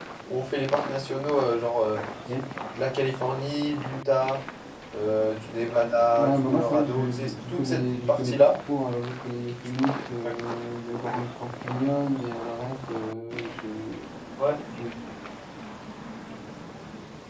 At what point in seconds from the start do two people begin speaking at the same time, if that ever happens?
6.2 s

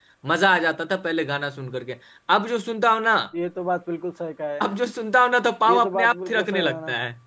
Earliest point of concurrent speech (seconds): 5.7 s

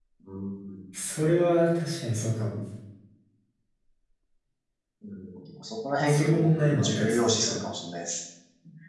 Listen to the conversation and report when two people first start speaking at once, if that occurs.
6.1 s

